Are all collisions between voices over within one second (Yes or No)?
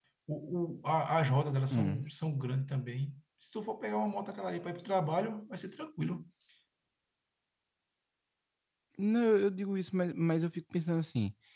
Yes